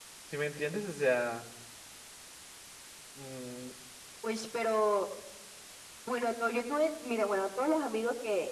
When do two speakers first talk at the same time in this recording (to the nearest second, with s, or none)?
none